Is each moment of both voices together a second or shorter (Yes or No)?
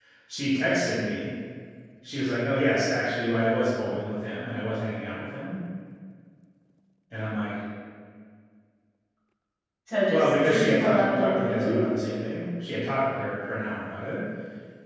No